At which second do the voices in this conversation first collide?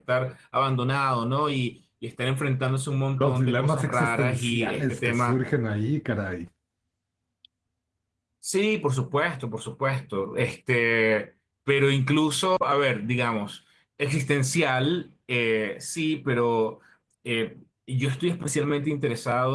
3.2 s

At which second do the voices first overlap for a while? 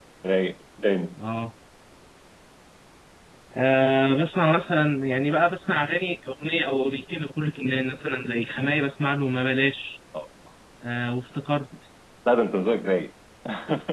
none

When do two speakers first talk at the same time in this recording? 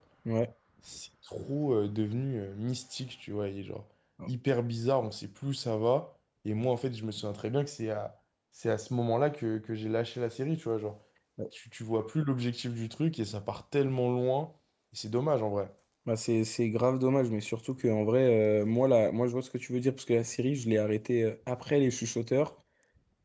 none

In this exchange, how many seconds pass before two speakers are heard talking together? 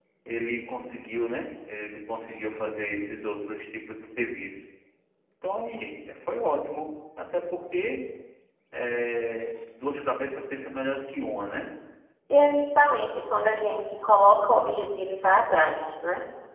none

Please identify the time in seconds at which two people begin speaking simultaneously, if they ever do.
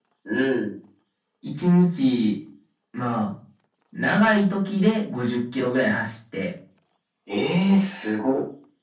none

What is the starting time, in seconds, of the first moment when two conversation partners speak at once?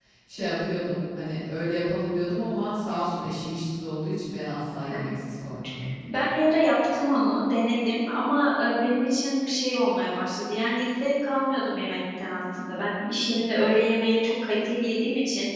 none

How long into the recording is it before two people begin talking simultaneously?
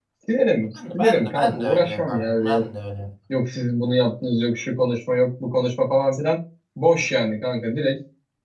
0.9 s

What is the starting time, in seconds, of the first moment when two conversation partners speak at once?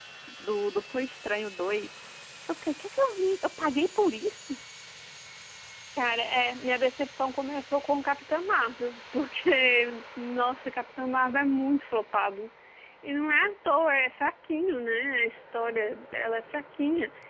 none

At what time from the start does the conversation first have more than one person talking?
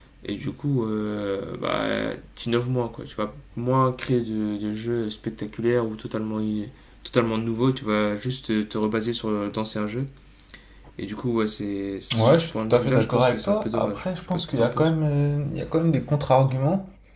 12.1 s

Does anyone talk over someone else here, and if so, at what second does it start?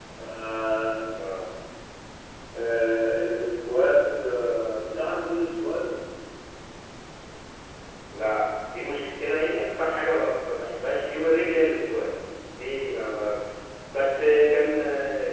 none

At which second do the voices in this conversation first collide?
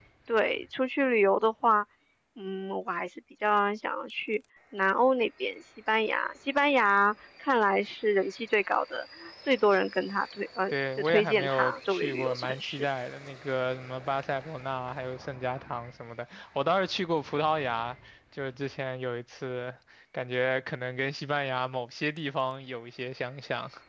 10.7 s

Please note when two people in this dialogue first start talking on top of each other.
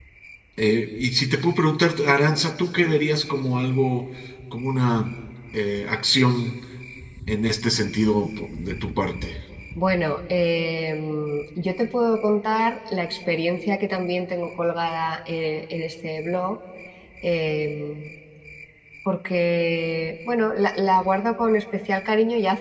none

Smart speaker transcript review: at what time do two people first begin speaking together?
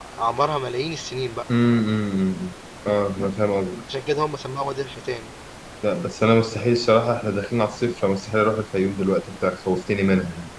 none

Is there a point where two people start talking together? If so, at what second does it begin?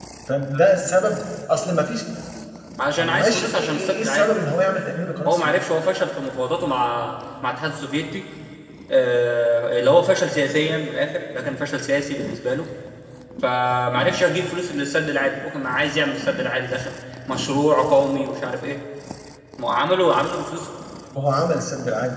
3.0 s

